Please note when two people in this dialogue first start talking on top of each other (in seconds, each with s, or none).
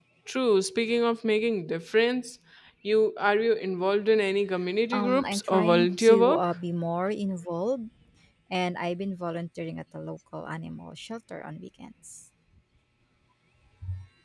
4.9 s